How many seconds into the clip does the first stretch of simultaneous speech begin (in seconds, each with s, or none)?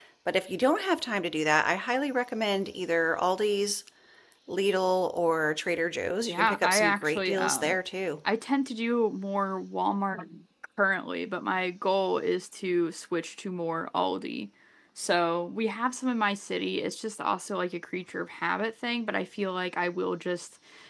6.3 s